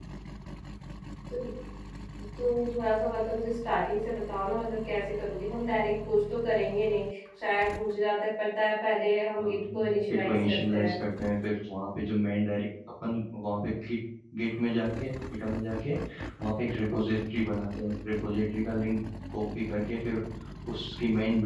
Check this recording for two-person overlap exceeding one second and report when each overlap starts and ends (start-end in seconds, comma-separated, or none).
9.4-10.9